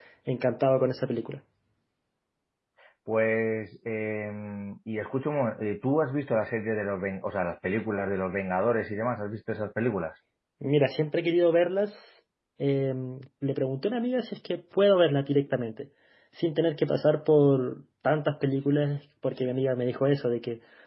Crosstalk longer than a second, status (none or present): none